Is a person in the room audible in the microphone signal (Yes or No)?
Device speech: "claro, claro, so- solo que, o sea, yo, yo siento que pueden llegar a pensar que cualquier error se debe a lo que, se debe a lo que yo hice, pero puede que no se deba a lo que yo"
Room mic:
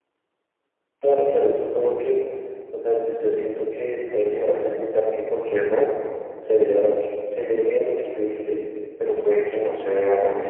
No